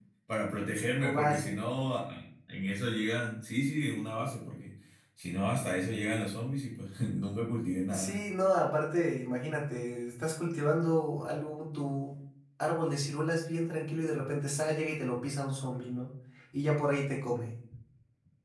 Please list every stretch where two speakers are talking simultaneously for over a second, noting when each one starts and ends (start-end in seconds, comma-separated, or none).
none